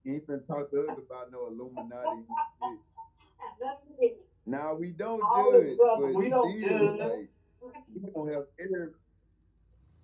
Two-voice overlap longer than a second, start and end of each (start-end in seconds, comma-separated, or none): 5.2-7.2